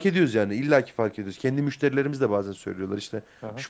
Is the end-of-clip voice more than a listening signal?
No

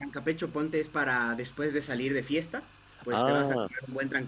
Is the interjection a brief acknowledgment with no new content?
Yes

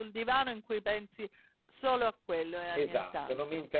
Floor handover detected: Yes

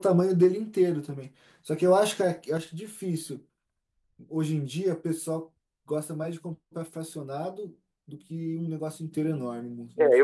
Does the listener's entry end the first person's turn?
Yes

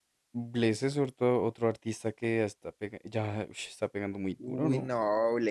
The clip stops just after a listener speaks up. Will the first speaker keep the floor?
No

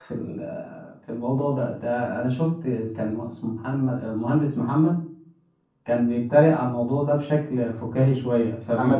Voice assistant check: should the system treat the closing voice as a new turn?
No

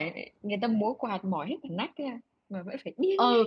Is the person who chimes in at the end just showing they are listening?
No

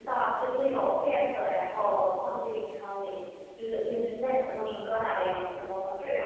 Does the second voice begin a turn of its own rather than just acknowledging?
Yes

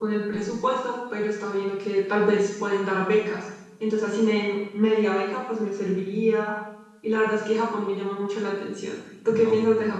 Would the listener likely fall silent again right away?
No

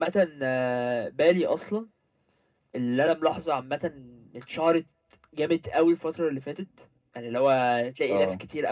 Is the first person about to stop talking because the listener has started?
No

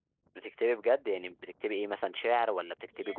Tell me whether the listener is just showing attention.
No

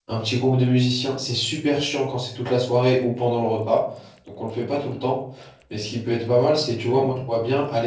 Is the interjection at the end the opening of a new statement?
No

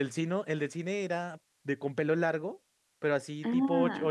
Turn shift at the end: No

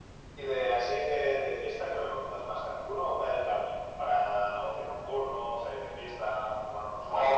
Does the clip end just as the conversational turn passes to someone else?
Yes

